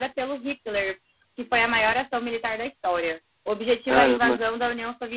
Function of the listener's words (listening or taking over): listening